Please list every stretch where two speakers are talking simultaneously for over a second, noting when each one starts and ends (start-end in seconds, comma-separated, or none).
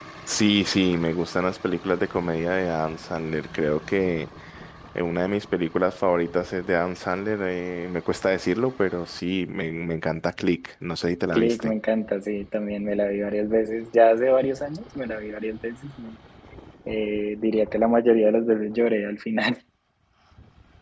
none